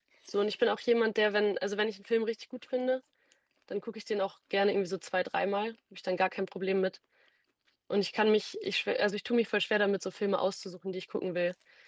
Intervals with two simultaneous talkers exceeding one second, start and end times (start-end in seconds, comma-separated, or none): none